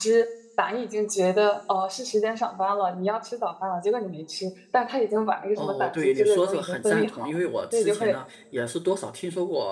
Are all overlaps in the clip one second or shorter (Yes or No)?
No